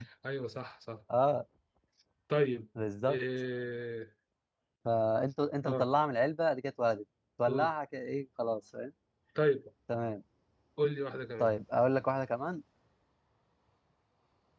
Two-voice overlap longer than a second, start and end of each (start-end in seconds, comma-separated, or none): none